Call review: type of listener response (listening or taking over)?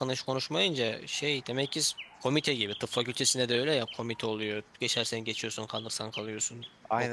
taking over